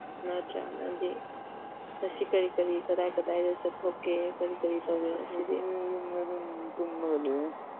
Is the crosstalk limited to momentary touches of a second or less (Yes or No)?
Yes